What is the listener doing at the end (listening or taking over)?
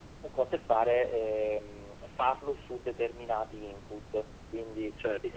taking over